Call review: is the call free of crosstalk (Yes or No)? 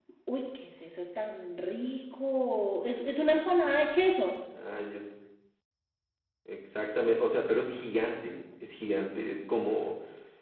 Yes